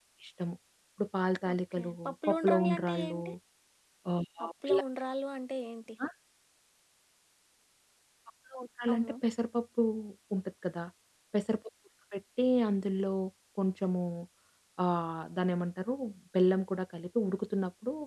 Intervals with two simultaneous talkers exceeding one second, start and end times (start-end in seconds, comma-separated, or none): 1.5-3.2